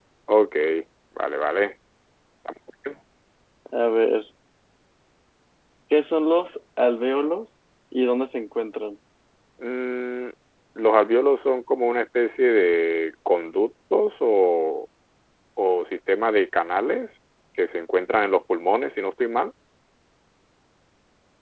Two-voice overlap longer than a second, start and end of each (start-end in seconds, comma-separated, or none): none